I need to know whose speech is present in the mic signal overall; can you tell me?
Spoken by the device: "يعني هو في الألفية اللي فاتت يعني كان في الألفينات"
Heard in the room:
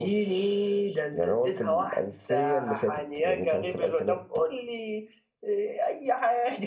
both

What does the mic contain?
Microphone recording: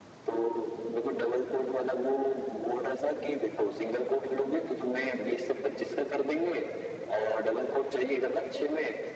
echo only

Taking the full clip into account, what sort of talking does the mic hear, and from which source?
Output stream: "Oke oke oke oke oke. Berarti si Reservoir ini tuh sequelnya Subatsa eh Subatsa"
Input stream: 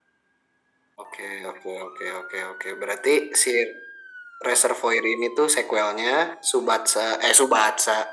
echo only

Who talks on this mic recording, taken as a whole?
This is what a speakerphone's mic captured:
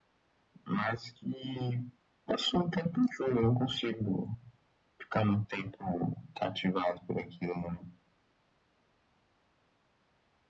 echo only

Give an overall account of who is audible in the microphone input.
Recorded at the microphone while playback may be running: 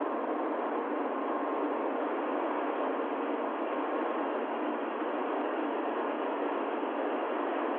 neither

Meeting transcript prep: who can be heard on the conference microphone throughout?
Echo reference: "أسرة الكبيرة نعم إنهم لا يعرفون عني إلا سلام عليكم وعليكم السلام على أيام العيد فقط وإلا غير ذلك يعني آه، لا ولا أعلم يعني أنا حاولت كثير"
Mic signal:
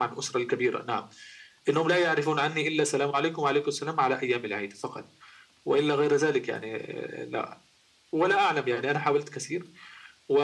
echo only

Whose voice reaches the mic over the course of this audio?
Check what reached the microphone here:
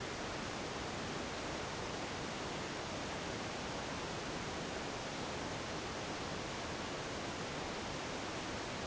neither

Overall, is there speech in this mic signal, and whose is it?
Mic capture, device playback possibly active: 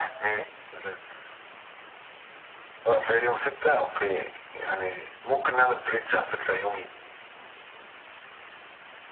echo only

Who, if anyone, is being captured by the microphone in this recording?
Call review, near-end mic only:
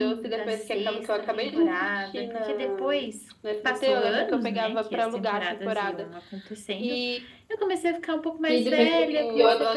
both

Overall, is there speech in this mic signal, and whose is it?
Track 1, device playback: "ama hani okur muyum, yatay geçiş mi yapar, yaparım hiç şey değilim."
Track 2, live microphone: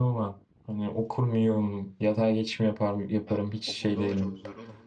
both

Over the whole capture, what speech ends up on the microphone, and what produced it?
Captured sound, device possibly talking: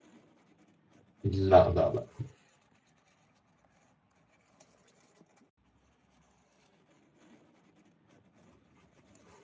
user only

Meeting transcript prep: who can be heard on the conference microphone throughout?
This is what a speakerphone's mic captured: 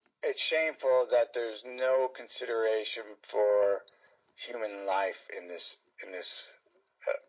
echo only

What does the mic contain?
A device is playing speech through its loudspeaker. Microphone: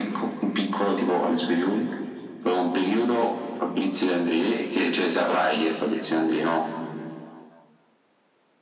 echo only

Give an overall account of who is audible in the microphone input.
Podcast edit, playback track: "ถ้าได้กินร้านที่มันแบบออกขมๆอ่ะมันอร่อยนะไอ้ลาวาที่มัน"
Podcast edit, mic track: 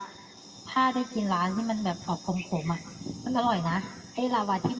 echo only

